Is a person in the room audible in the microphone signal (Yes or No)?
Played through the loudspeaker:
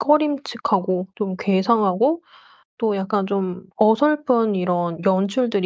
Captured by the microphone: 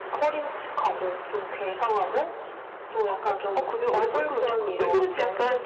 Yes